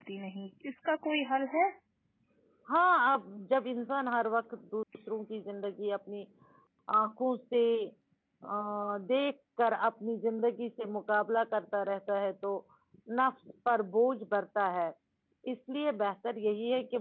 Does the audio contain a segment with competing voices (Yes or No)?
No